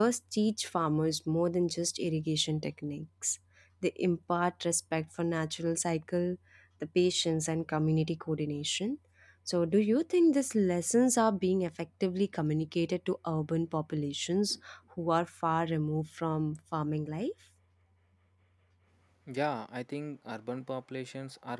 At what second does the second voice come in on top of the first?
none

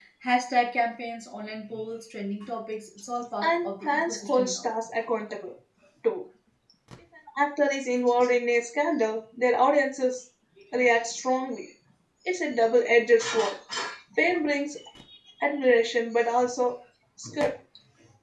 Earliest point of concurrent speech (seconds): 3.4 s

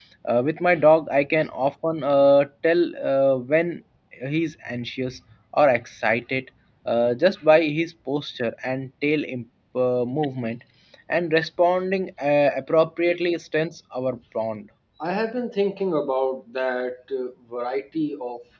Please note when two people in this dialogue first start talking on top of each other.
none

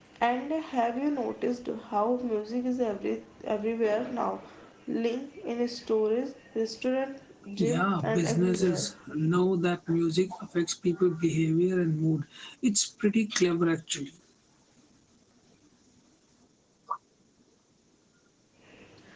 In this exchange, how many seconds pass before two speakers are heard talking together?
7.6 s

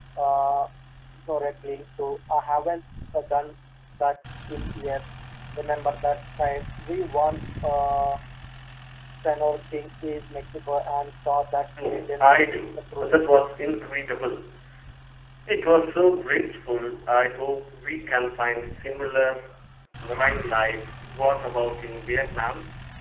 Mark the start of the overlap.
11.8 s

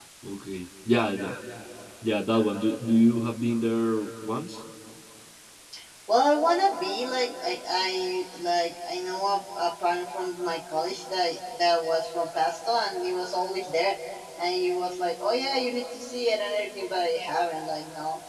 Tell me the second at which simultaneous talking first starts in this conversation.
none

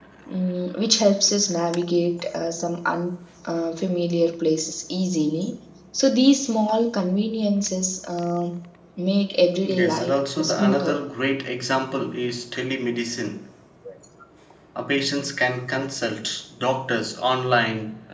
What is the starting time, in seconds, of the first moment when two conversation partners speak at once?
9.6 s

